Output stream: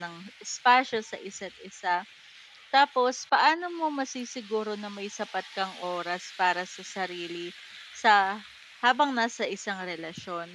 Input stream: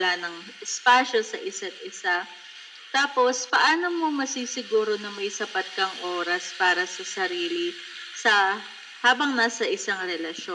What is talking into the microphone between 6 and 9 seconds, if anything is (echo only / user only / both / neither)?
echo only